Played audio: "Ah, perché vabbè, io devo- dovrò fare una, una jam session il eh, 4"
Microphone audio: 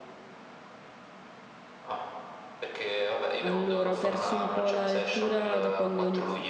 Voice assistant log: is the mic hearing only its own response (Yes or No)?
No